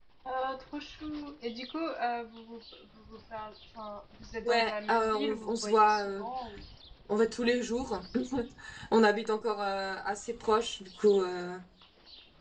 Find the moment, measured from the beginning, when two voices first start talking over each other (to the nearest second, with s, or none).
4 s